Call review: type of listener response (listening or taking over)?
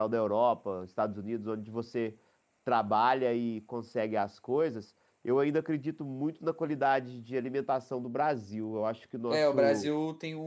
taking over